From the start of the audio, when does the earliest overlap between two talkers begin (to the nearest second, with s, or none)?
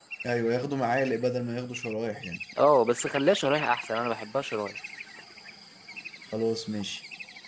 none